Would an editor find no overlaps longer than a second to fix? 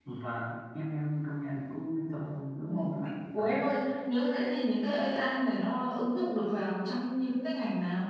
Yes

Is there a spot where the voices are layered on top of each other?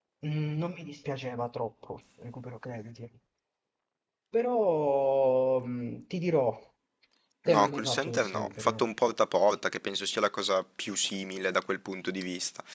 Yes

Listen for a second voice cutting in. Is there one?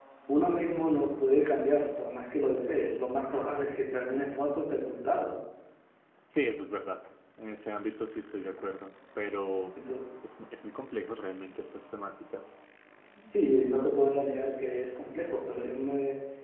No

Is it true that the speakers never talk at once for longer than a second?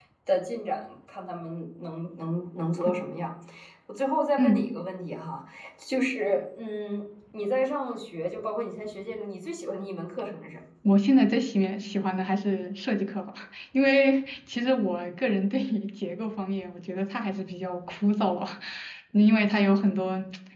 Yes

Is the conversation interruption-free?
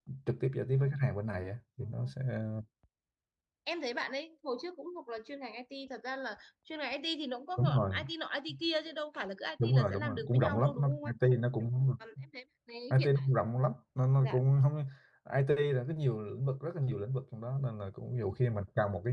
No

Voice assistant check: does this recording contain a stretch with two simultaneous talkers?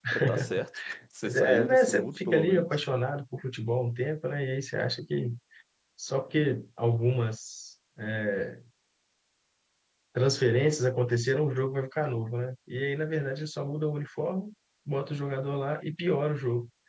Yes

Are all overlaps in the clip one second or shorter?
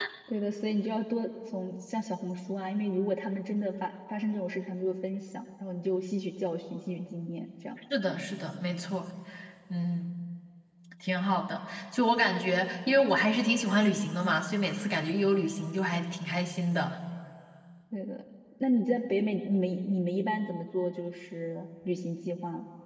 Yes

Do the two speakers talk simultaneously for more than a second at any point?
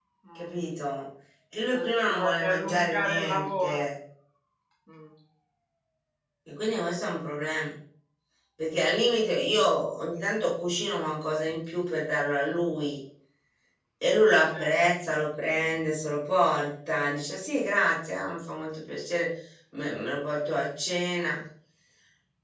Yes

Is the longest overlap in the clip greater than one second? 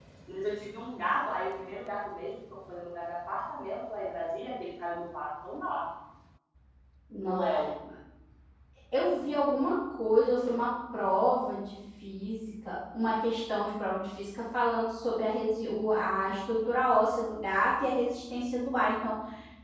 No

